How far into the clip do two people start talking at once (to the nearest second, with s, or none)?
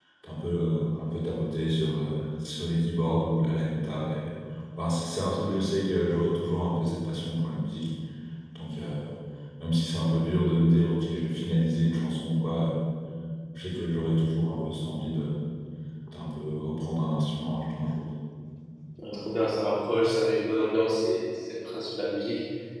none